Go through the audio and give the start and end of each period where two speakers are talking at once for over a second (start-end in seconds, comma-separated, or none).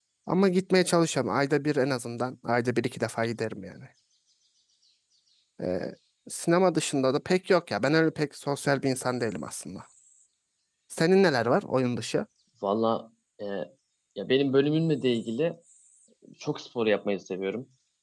none